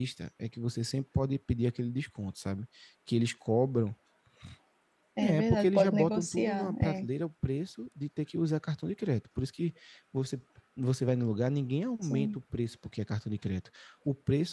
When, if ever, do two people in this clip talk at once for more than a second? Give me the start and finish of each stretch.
5.2-7.1

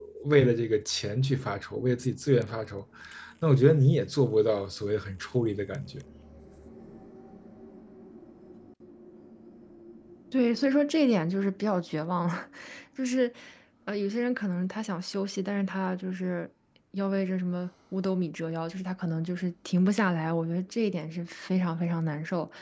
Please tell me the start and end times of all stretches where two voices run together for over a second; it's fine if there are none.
none

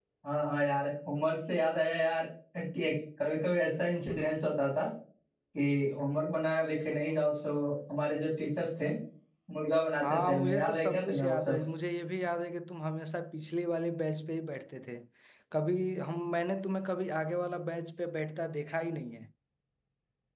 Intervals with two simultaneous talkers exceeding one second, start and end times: 10.0-11.6

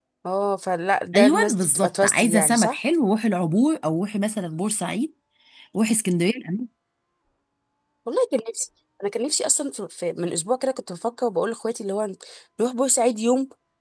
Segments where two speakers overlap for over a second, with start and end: 1.1-2.8

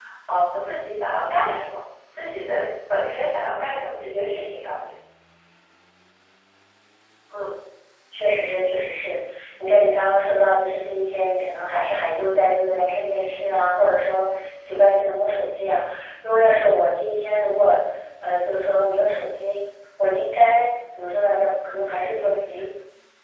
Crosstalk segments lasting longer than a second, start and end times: none

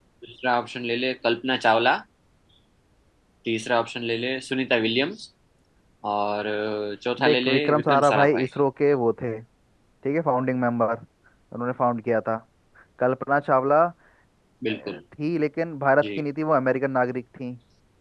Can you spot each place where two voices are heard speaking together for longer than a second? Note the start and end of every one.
7.2-8.5

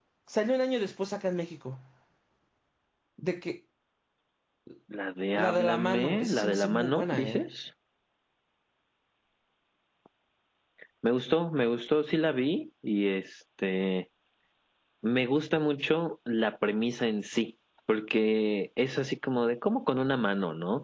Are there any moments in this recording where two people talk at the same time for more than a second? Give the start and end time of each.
5.4-7.5

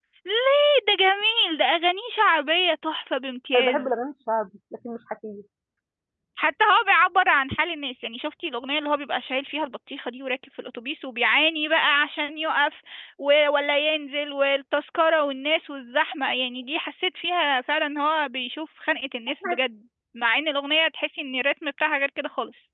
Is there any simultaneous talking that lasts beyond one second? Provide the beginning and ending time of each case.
none

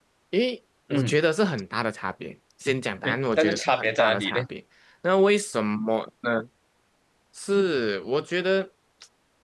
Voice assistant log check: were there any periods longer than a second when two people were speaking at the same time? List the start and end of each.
3.0-4.4

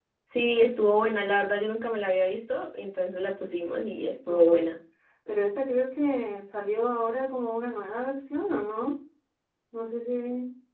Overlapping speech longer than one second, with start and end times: none

